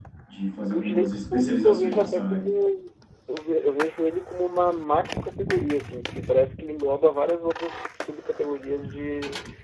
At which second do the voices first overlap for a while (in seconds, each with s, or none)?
0.6 s